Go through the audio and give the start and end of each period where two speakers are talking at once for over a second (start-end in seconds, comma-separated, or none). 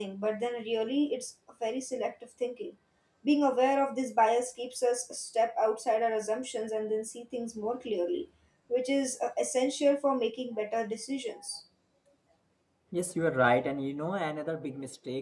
none